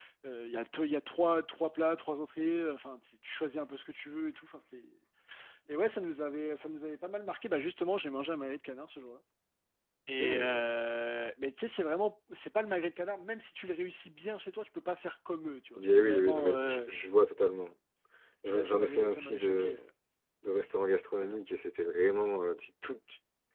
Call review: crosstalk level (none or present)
present